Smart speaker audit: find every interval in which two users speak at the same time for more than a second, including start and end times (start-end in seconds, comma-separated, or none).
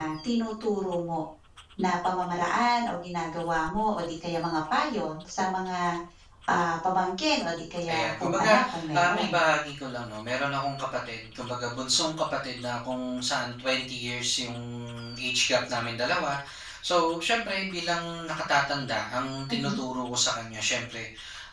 7.9-9.3